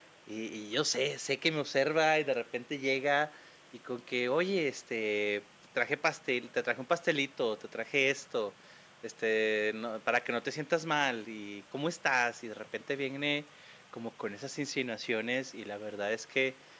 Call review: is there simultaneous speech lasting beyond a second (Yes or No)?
No